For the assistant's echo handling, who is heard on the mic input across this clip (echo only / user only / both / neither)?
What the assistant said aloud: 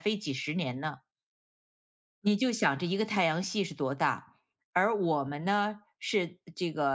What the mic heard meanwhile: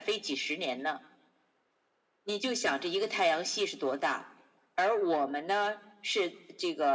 echo only